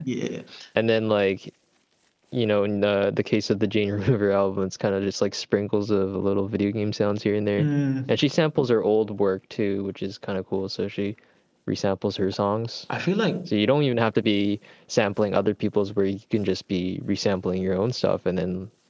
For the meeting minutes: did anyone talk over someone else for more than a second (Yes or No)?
No